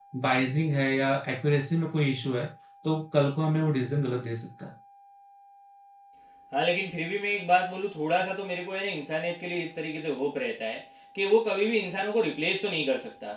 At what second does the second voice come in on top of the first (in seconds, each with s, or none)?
none